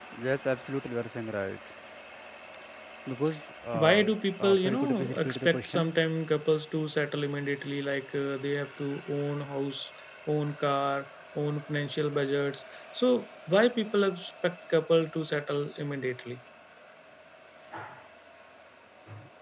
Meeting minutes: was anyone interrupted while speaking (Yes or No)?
Yes